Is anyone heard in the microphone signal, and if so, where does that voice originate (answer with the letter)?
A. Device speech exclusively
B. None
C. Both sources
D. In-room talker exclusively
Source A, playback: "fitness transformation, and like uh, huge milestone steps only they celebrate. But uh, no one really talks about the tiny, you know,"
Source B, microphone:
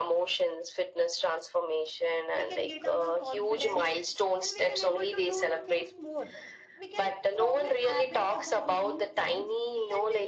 C